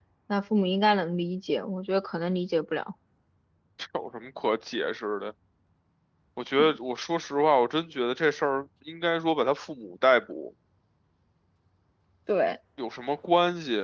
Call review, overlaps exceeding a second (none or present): none